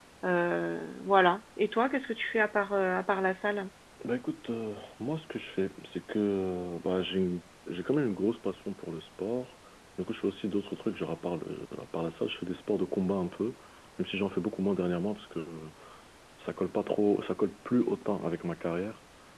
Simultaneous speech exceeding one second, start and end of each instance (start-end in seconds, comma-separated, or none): none